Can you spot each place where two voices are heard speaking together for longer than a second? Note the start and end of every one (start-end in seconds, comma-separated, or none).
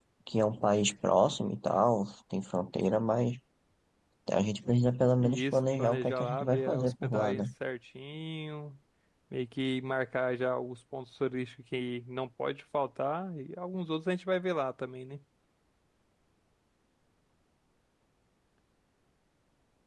5.2-7.4